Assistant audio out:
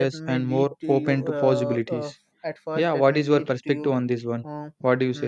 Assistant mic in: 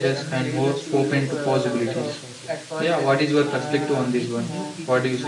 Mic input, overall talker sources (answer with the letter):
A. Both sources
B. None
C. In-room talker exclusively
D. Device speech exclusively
A